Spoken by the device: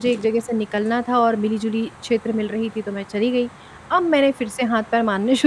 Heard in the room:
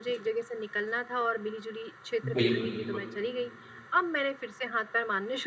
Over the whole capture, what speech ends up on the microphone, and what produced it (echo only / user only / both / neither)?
both